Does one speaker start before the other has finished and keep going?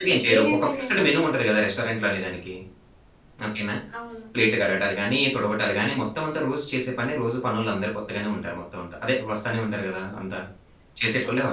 Yes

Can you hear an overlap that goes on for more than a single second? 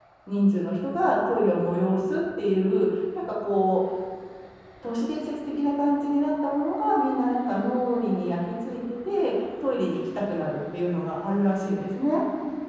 No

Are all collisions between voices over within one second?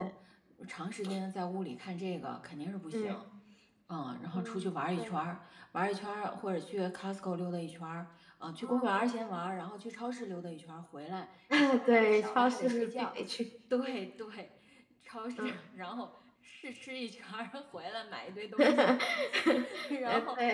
No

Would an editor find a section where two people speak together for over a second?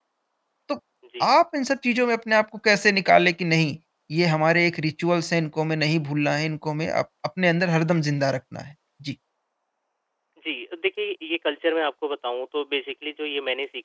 No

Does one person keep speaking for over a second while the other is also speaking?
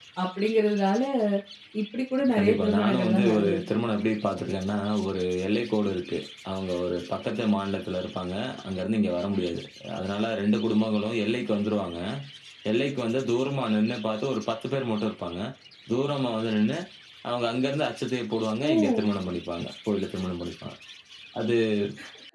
Yes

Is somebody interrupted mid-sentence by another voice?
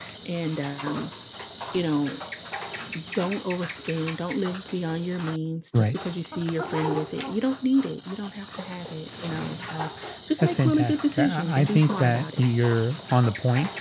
Yes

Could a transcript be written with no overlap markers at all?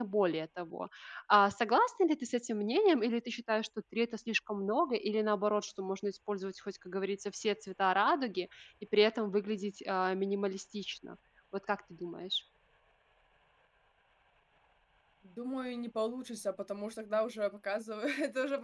Yes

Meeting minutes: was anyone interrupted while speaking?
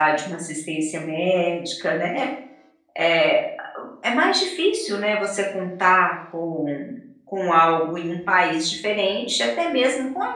No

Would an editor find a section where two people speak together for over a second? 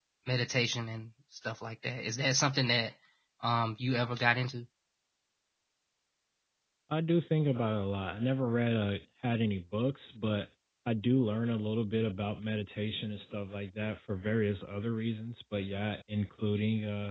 No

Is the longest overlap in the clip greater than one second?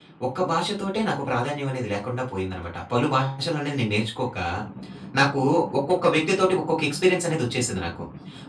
No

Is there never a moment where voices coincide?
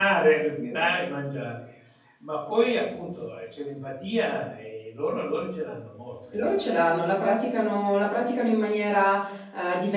Yes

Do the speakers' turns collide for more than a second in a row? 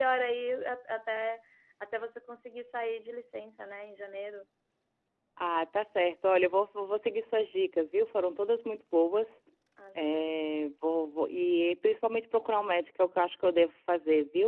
No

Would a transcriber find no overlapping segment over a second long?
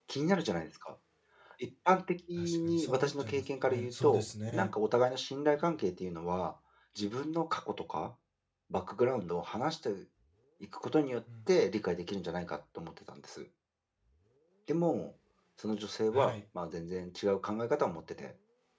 No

